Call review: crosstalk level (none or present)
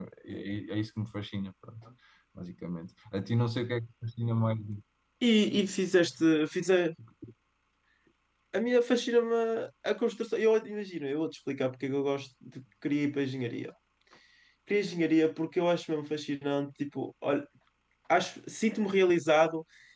none